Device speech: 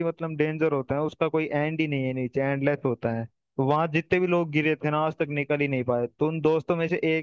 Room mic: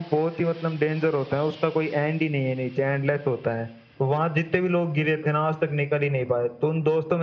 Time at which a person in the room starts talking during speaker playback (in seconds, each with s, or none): none